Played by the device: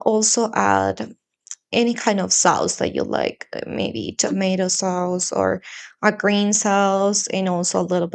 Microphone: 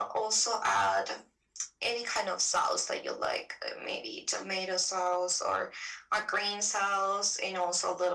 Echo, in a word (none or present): present